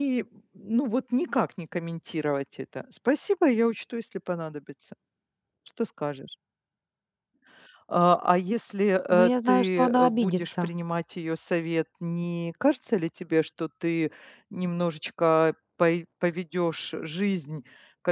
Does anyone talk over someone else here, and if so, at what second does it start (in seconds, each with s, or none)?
9.1 s